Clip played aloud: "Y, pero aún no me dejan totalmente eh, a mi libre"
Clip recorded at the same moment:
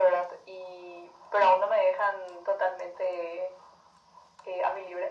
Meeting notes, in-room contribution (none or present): none